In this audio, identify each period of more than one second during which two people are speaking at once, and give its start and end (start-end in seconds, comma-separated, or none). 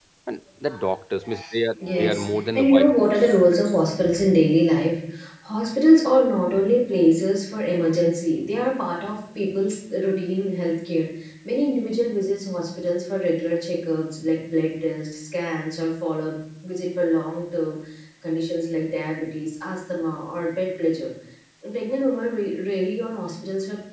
1.8-3.3